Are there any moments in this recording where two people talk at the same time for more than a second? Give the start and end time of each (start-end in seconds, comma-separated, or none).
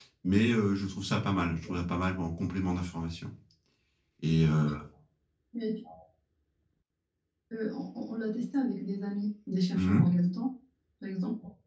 none